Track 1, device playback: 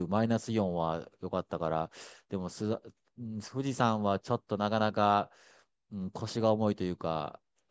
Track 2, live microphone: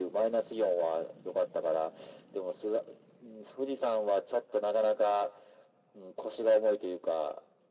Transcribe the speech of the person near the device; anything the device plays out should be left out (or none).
none